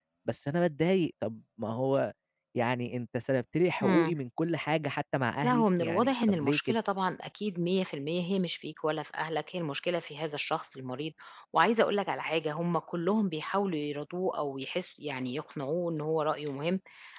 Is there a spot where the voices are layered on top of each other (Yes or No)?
Yes